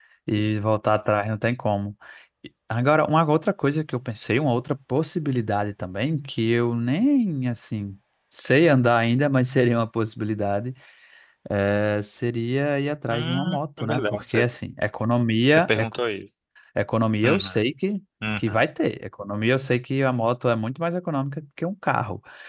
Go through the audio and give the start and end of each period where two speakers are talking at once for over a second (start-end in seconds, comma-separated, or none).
13.1-14.4